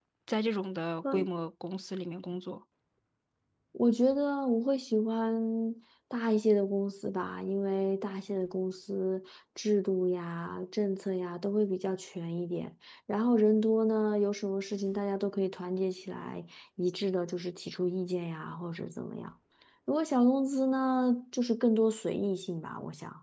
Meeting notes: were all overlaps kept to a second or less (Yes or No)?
Yes